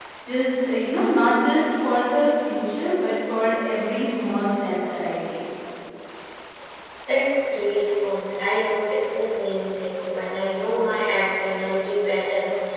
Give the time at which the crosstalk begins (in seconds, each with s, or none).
none